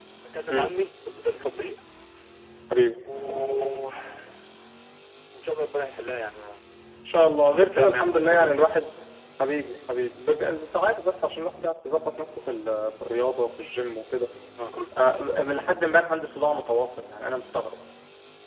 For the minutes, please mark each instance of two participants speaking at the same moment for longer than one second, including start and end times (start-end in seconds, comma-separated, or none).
7.5-8.8